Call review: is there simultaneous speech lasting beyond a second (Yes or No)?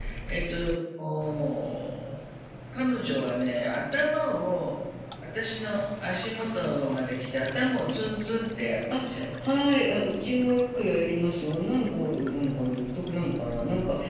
No